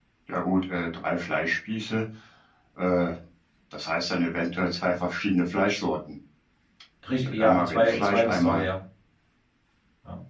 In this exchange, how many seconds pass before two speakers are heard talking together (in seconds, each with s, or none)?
7.2 s